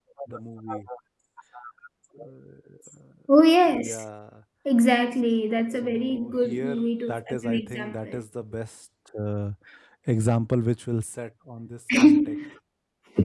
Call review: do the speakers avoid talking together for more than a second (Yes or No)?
No